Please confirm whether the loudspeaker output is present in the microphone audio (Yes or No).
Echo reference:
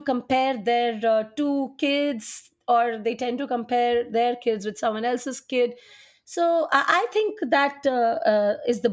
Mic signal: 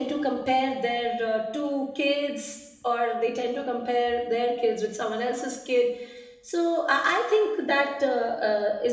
Yes